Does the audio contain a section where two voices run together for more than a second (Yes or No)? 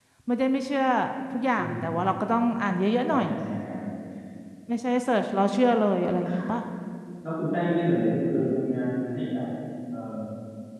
No